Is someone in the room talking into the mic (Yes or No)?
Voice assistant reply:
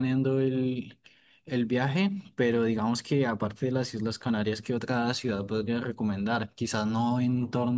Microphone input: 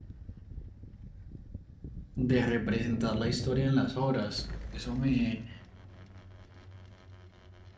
Yes